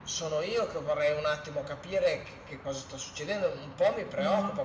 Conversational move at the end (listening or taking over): listening